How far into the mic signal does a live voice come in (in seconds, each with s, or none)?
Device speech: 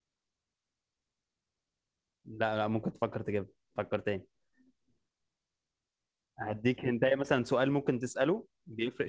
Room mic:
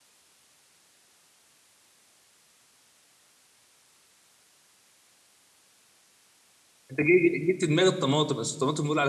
6.9 s